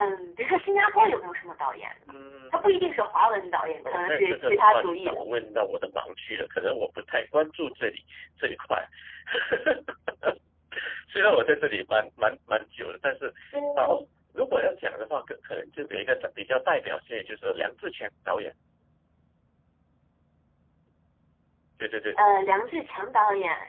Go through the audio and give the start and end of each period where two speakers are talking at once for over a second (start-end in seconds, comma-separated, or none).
3.8-5.2